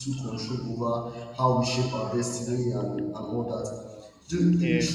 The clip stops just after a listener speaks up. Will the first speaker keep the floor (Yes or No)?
Yes